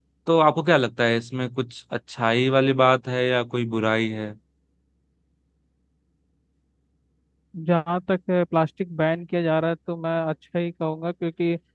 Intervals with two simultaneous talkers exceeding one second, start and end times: none

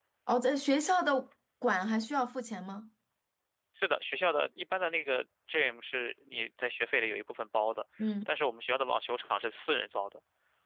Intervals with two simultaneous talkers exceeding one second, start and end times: none

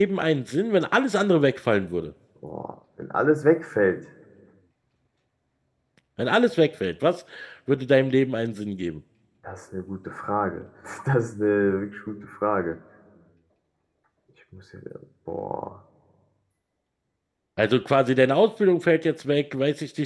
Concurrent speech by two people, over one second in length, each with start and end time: none

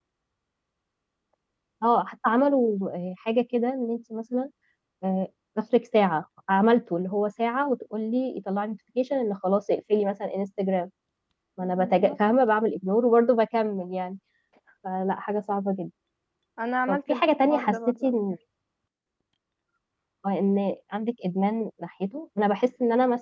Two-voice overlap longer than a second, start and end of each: 16.9-18.2

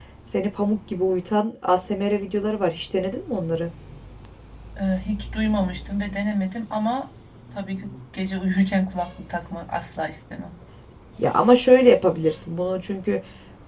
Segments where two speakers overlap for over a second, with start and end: none

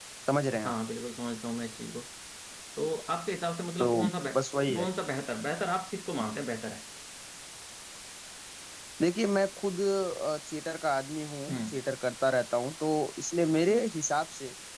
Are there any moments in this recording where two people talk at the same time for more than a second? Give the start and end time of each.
none

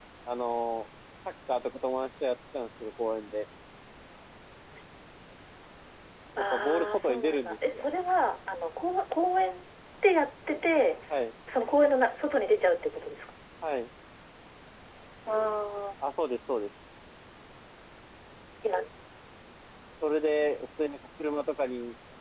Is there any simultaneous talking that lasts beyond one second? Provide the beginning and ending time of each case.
6.4-7.8

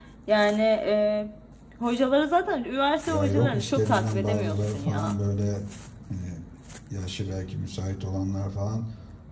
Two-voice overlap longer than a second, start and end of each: 3.1-5.2

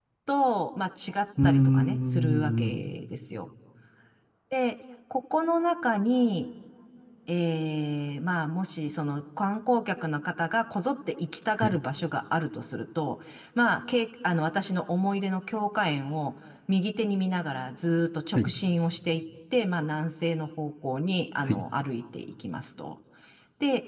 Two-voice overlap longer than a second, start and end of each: 1.4-2.9

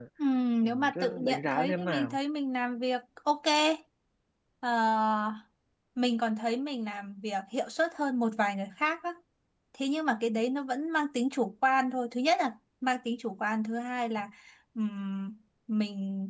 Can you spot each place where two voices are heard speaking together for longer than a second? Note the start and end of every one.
0.6-2.2

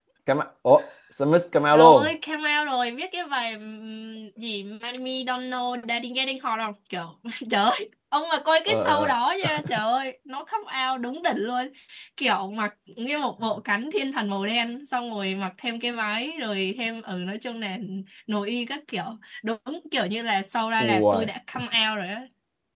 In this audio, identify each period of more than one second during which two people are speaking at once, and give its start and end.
none

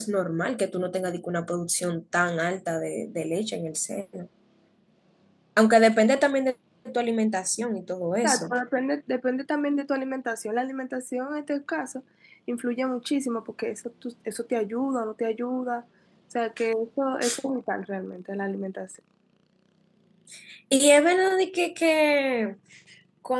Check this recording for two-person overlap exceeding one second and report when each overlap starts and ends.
none

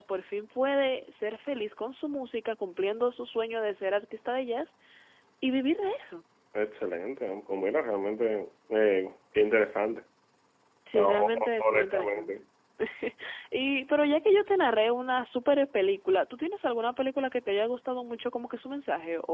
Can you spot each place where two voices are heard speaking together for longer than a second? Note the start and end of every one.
10.9-12.3

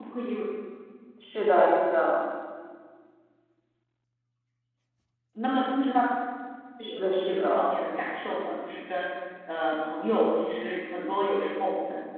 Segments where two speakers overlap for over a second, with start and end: none

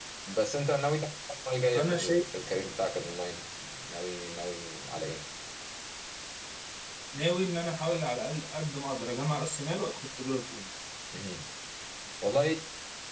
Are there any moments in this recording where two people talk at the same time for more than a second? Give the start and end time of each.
none

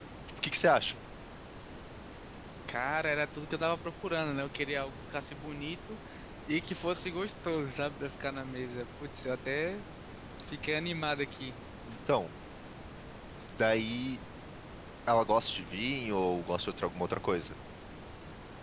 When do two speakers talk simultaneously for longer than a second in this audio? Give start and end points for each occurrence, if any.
none

